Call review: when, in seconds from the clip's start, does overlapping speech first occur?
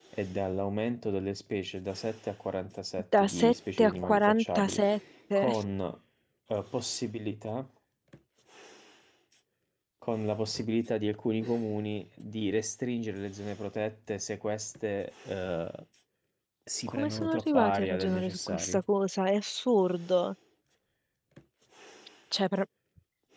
3.2 s

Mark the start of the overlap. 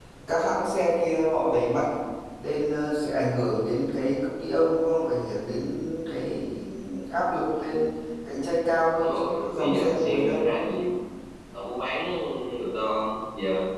8.9 s

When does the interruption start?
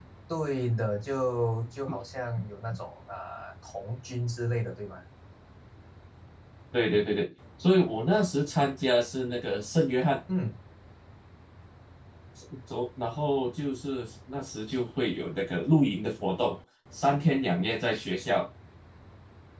none

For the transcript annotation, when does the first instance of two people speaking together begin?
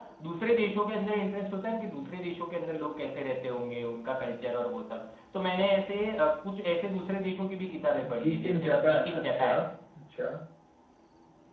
8.0 s

